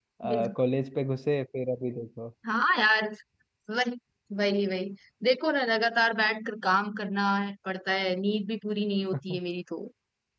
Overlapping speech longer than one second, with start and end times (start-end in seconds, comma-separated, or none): none